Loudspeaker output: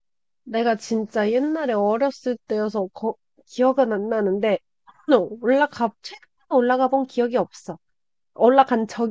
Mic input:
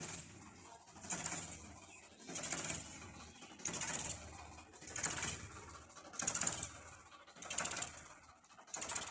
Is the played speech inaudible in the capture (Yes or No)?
Yes